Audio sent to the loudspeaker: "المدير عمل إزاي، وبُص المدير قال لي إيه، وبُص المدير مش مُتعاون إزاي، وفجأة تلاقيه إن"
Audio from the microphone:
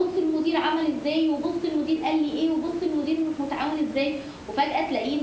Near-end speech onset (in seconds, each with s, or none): none